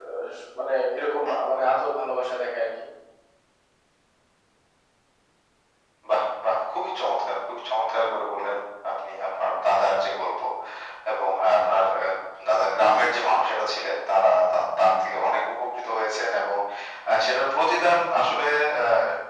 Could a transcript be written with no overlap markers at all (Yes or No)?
Yes